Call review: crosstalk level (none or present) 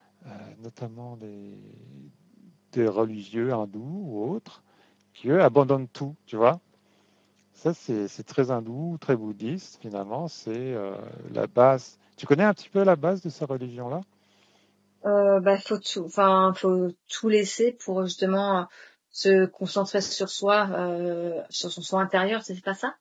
none